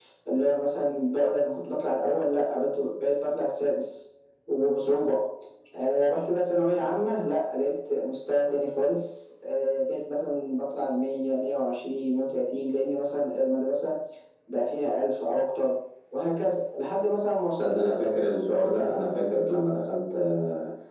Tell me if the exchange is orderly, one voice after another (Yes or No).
Yes